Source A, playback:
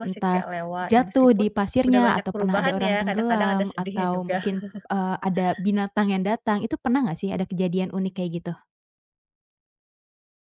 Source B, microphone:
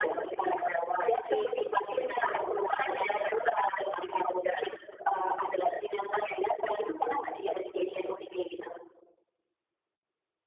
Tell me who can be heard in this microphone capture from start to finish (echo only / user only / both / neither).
both